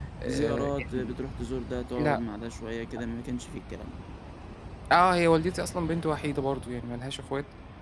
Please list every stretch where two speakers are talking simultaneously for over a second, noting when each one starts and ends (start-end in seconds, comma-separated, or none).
none